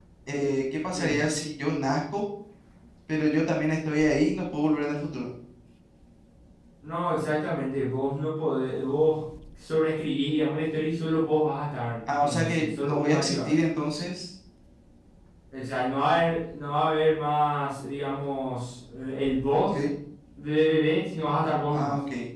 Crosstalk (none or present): present